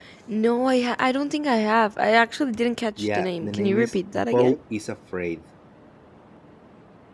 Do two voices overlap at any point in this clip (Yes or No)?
Yes